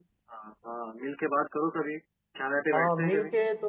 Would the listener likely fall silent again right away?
No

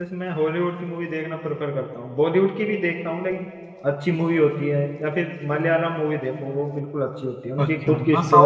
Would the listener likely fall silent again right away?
No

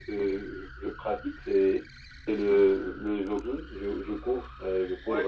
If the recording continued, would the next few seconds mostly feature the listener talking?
No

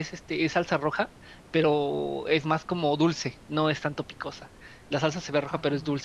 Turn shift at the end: No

